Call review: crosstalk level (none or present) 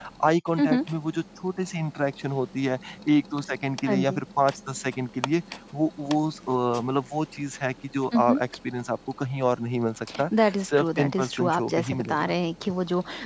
present